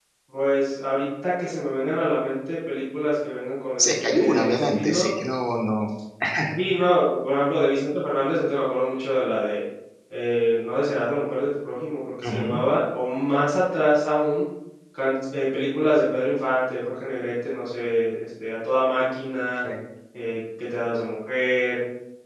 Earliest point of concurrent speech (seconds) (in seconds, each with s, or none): 3.8 s